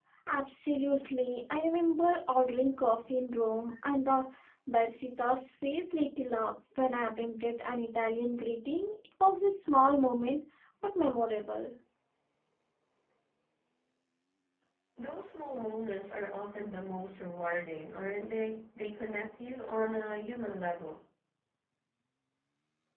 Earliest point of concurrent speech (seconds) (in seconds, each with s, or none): none